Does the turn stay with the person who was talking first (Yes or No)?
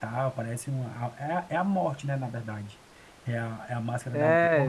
No